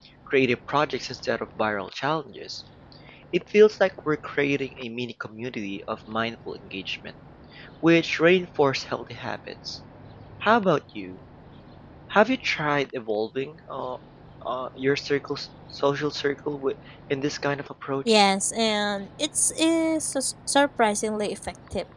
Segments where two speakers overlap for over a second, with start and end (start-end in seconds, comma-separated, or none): none